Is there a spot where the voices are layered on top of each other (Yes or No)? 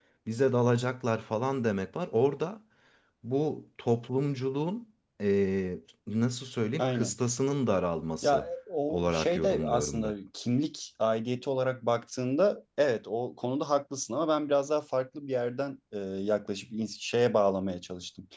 Yes